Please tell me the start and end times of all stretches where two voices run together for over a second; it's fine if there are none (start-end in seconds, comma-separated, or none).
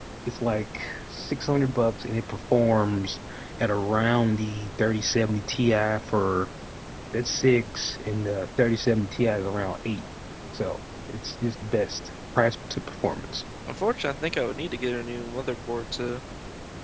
none